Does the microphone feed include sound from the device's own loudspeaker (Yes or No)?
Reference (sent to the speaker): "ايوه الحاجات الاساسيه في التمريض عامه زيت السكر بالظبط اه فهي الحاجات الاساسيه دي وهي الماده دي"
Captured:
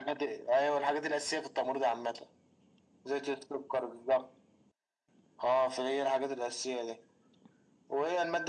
Yes